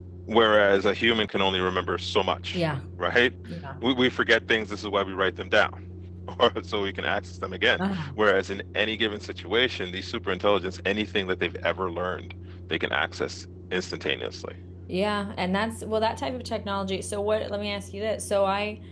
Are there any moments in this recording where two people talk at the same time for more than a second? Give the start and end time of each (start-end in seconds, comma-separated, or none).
none